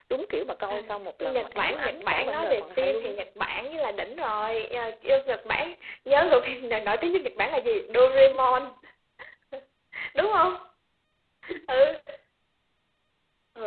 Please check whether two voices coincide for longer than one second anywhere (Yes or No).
Yes